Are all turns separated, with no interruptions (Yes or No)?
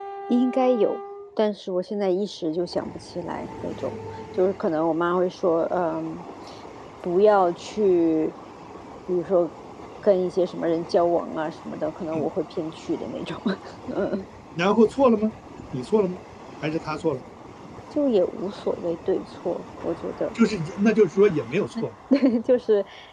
Yes